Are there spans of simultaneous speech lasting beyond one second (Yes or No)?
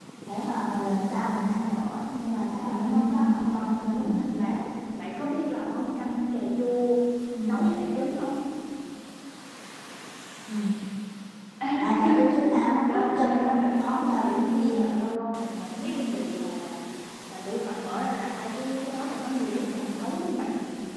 Yes